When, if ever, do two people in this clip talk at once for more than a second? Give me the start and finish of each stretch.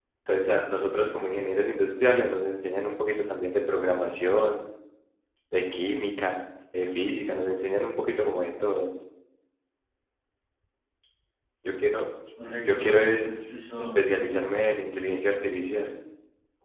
12.7-14.0

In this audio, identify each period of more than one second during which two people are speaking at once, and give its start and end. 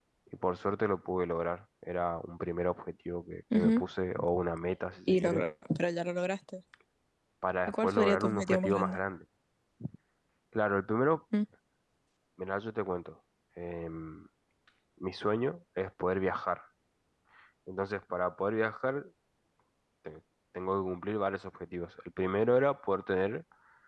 7.7-9.0

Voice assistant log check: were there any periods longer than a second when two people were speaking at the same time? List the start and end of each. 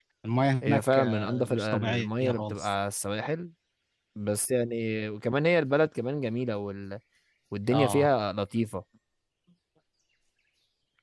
0.6-2.7

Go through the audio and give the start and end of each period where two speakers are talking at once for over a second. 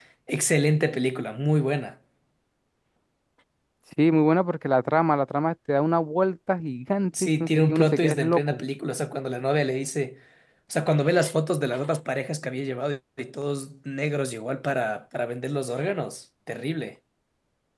7.2-8.6

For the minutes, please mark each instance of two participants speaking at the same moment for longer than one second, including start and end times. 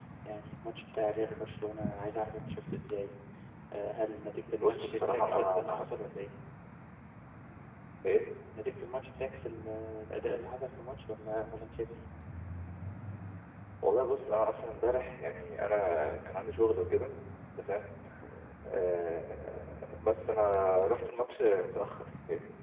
4.6-5.8

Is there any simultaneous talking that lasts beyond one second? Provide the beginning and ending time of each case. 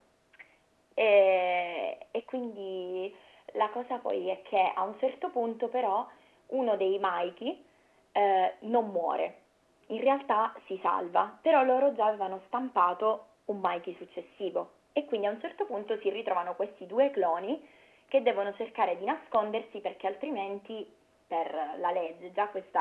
none

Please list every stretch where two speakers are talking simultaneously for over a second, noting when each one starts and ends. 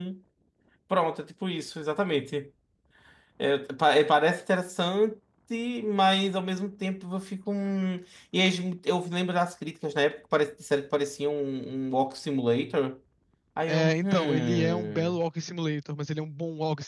13.7-15.2

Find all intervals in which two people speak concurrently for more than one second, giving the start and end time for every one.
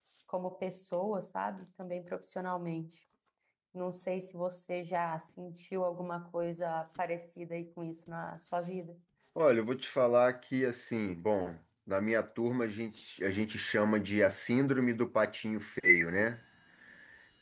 none

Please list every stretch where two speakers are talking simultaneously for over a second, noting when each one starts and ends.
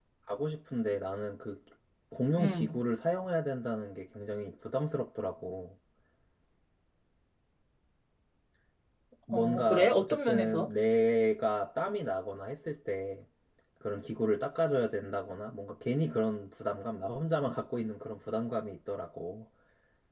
9.3-10.7

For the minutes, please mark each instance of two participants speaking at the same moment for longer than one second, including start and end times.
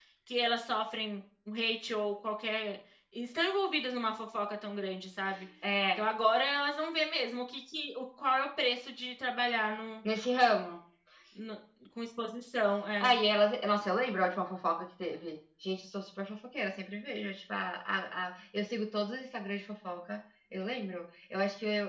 none

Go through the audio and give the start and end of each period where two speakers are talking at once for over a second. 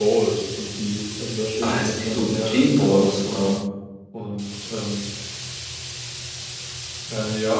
1.6-3.4

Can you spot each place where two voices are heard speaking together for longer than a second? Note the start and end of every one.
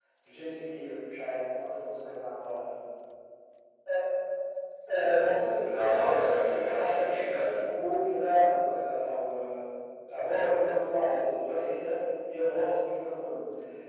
5.5-7.5

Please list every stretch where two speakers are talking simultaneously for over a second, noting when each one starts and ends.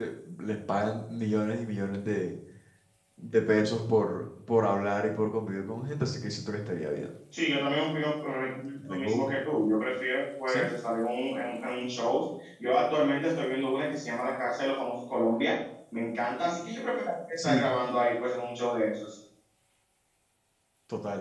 none

